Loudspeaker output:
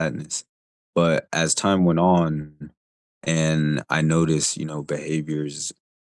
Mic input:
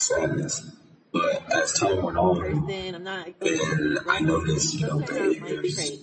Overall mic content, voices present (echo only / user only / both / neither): both